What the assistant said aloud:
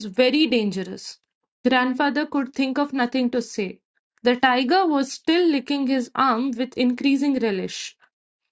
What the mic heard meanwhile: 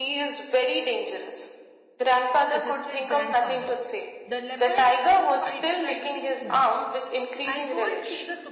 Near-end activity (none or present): present